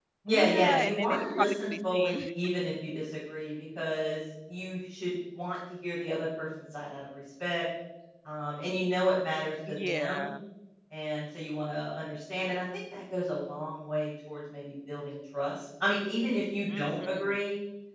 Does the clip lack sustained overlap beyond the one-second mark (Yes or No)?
No